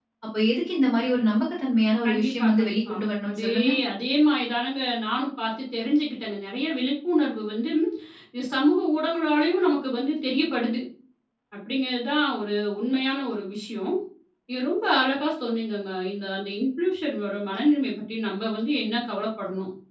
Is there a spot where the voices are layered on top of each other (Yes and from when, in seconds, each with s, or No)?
Yes, from 2.0 s